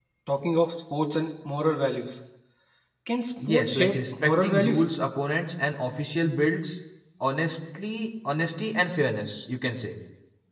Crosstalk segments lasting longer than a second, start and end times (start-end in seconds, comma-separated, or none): 3.5-4.9